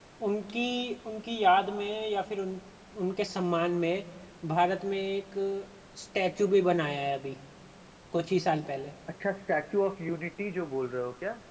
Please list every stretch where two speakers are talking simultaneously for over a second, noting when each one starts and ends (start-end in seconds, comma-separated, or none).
none